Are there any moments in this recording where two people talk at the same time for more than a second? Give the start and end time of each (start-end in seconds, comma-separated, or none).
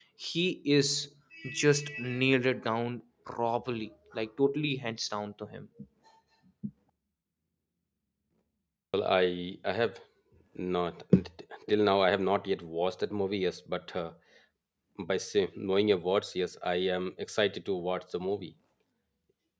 none